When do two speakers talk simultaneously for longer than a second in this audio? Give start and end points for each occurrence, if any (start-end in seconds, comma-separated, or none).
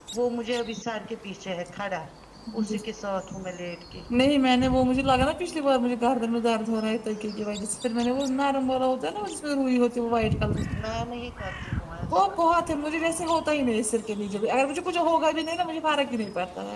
none